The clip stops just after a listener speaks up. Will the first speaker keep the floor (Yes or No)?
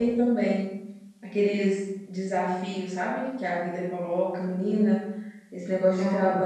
Yes